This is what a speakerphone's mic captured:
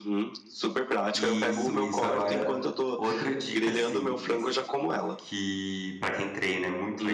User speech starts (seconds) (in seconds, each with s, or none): 1.1 s